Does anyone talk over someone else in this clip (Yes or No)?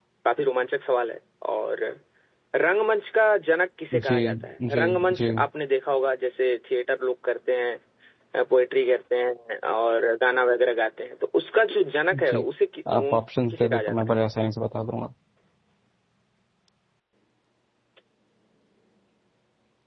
Yes